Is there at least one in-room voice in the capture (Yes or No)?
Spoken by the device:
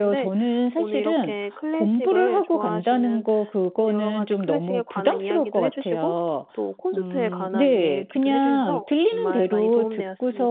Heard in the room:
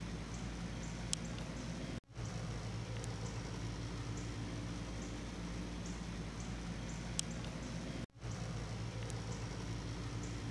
No